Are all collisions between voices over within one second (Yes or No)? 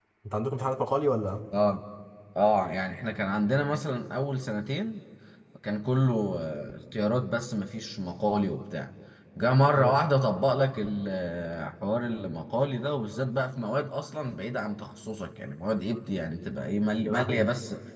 Yes